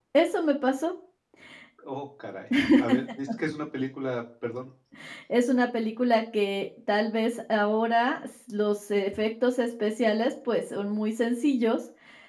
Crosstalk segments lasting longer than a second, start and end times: none

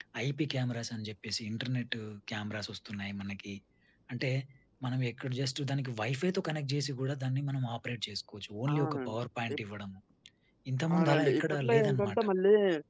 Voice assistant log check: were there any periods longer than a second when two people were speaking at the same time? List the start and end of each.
10.9-12.2

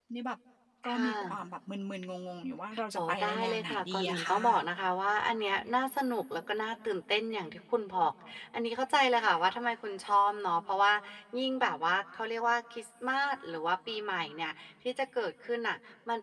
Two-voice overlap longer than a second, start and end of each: 3.0-4.3

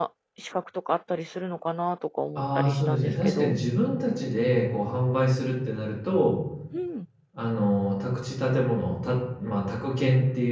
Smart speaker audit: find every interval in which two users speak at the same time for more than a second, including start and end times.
2.4-3.6

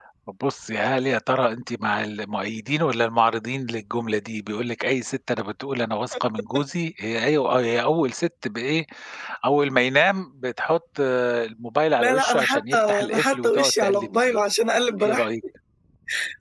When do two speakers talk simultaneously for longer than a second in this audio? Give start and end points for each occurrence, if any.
12.0-14.4

